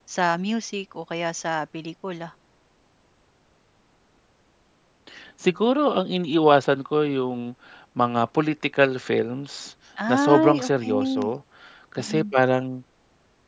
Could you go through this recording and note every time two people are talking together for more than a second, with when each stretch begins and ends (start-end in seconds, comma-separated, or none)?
10.1-11.3